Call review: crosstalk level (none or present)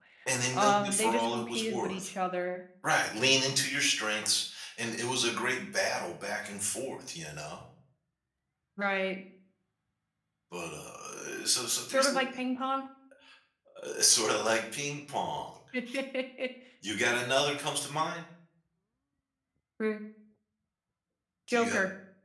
present